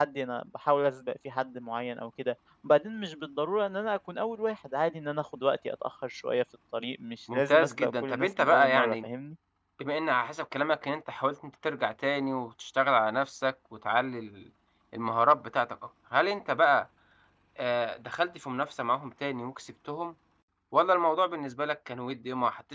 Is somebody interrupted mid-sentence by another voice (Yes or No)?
Yes